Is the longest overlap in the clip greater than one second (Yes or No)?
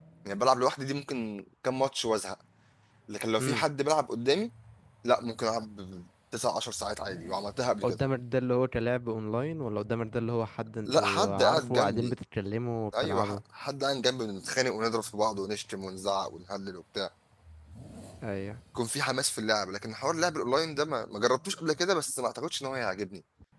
Yes